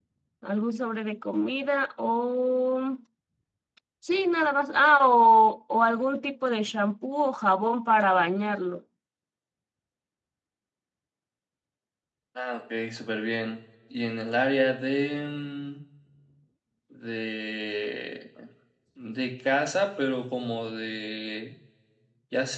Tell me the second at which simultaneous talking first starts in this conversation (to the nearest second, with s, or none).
none